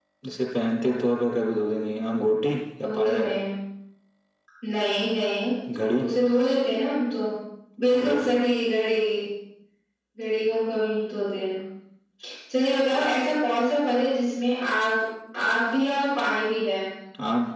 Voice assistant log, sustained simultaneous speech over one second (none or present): none